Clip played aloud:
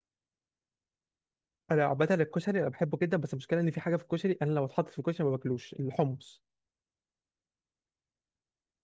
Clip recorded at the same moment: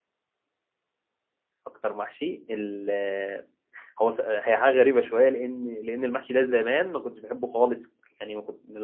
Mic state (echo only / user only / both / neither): user only